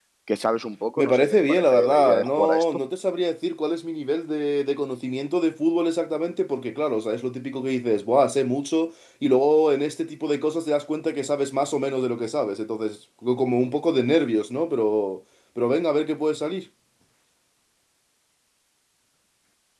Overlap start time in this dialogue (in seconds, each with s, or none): 1.0 s